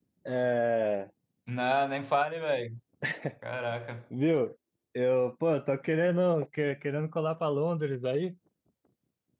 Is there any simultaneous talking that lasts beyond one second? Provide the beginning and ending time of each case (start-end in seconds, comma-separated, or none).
none